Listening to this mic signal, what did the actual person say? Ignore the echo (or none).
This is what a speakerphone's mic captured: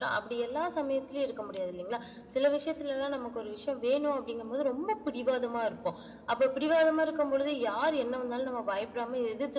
none